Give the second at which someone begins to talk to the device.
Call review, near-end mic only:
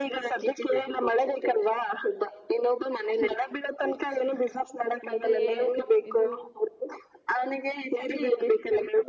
5.1 s

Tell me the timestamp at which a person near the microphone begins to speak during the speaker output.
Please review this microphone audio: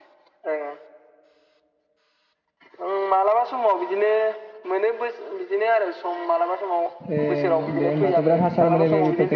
6.9 s

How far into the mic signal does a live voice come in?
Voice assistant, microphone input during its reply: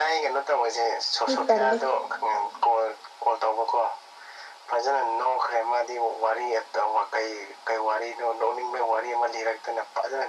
1.3 s

